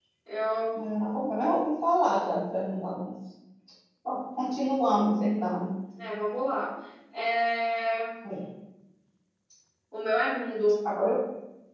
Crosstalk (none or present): none